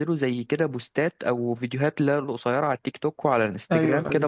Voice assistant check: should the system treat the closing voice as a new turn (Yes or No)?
No